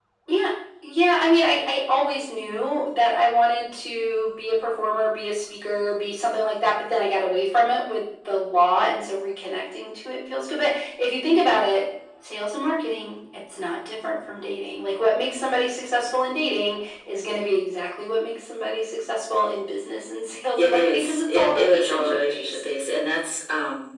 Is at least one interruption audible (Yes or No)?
Yes